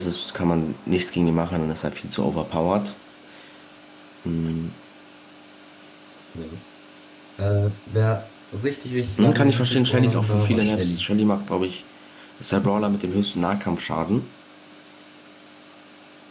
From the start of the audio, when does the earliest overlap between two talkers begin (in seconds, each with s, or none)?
9.2 s